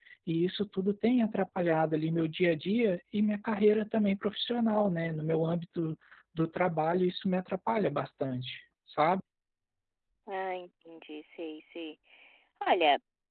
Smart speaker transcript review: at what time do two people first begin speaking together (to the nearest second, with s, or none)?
none